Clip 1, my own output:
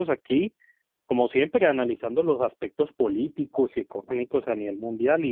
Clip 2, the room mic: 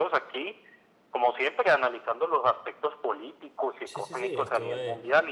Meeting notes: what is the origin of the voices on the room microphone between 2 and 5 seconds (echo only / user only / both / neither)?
both